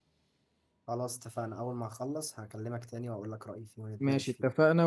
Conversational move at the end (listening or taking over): taking over